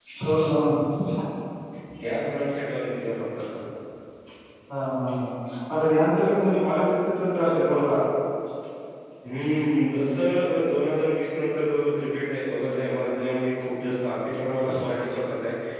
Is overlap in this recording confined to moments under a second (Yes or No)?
Yes